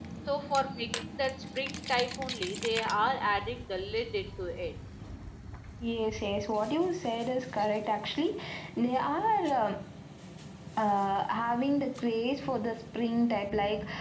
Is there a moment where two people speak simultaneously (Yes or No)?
No